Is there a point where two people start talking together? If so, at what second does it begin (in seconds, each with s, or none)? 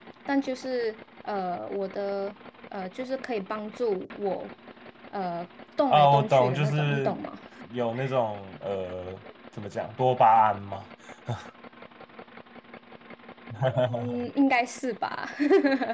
5.9 s